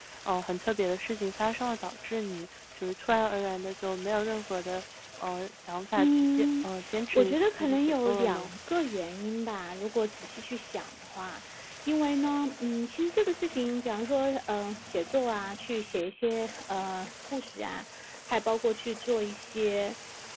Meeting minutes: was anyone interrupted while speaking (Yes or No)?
Yes